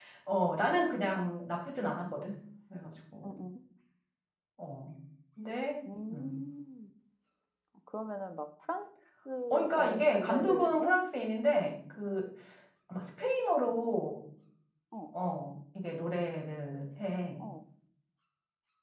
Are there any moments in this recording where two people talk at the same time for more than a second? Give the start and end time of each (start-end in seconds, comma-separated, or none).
9.5-10.9